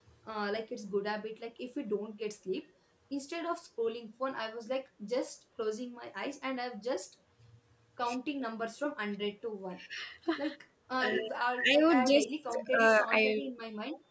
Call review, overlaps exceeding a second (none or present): present